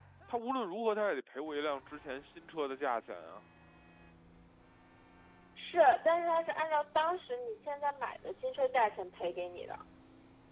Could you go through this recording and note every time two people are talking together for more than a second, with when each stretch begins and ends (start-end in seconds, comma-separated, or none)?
none